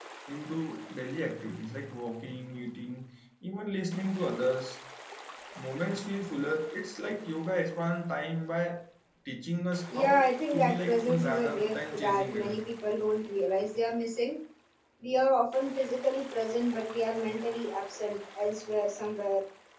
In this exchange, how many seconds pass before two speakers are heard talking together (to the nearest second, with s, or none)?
10 s